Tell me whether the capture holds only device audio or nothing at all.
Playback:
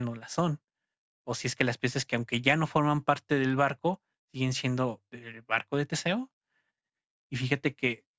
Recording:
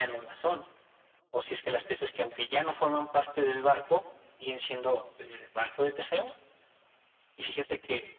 Yes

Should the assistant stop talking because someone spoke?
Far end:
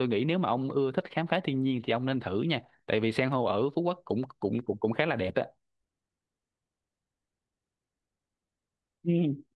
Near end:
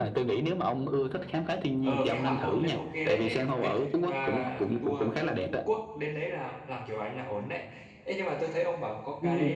Yes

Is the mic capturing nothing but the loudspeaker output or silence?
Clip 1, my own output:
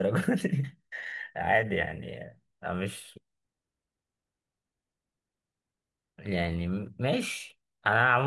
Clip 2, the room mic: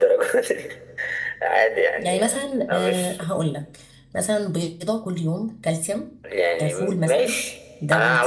No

